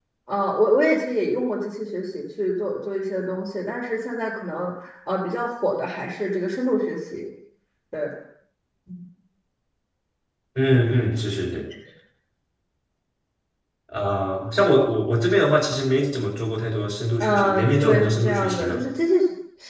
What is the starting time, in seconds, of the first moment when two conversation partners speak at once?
17 s

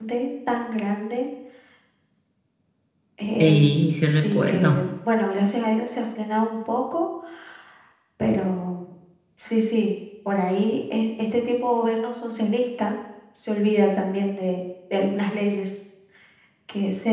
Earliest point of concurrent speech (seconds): 3 s

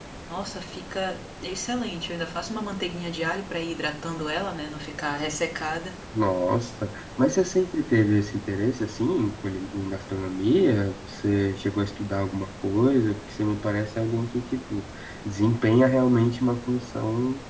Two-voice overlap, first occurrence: none

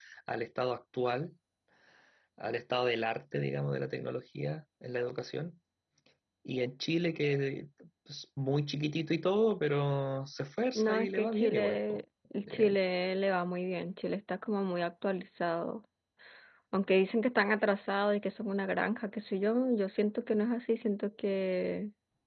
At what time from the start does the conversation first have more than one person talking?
11 s

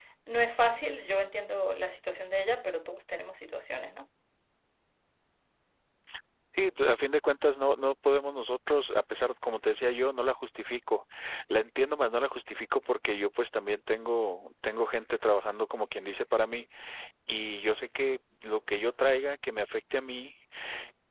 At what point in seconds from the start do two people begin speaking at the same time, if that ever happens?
none

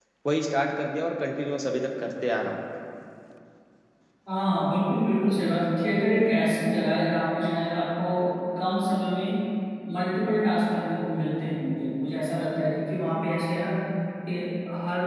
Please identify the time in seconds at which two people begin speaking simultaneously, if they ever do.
none

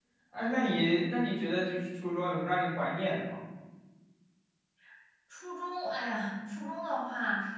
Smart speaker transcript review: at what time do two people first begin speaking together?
none

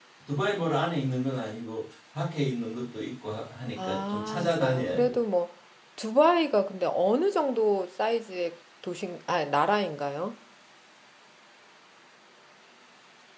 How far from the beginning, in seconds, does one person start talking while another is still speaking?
4 s

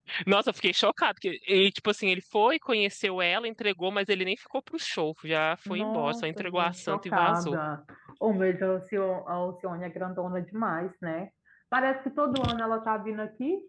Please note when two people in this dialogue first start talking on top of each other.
6 s

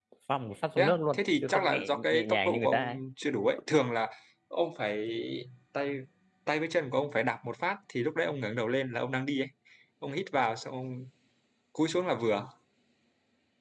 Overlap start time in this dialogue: 1 s

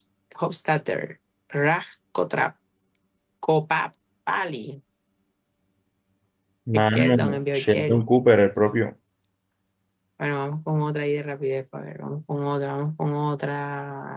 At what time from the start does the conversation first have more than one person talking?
7 s

